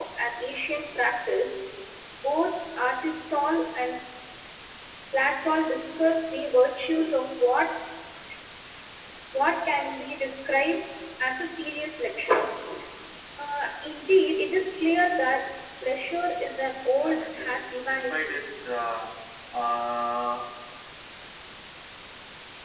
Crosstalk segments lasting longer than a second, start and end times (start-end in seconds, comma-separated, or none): 17.0-18.3